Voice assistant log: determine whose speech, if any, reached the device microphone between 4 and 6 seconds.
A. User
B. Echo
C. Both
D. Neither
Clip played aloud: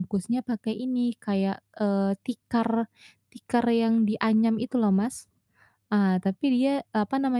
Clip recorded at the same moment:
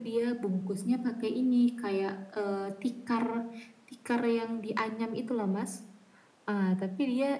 B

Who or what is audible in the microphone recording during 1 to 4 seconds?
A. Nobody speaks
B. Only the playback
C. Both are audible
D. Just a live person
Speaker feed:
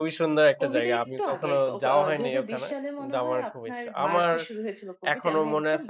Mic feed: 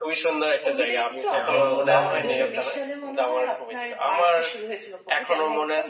C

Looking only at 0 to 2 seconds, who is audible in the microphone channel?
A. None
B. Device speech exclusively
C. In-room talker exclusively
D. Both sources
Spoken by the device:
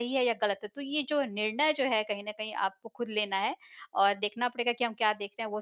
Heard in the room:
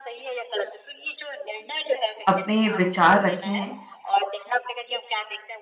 B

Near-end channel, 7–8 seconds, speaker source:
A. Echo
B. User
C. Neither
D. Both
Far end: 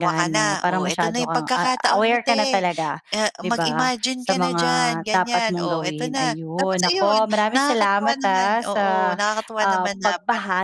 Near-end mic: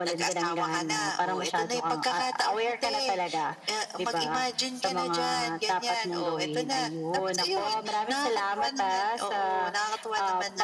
A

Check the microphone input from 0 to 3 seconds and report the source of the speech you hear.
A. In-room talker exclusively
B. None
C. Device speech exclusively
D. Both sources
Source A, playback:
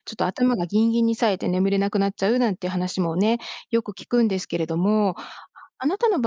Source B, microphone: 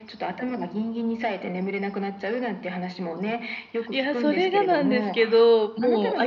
C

